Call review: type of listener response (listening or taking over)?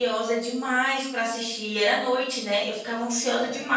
listening